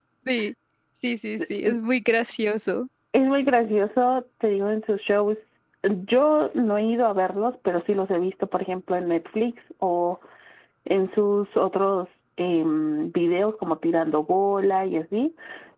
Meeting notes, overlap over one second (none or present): none